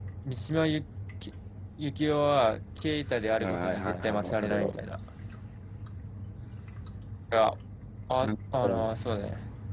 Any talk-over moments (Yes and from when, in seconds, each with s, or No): Yes, from 3.4 s